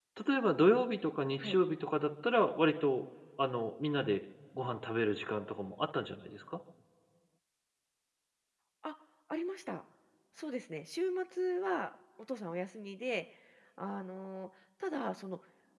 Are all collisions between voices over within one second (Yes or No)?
Yes